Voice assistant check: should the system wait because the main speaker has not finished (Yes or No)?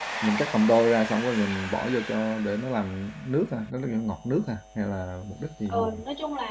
No